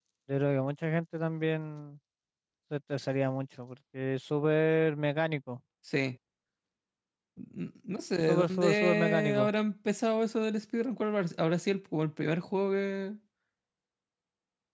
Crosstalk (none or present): present